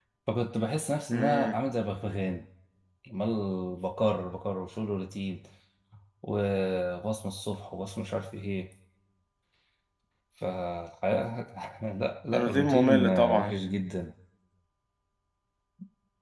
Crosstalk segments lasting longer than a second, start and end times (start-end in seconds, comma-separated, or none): 12.3-13.5